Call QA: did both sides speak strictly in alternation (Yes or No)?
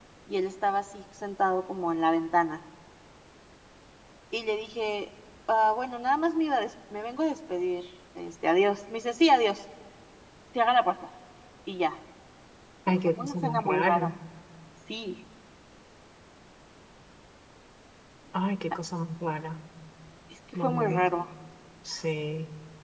No